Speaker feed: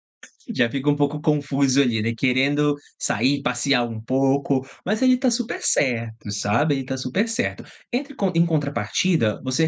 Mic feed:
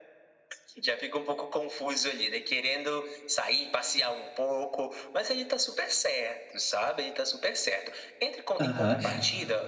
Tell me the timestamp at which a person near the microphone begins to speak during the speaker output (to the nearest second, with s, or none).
9 s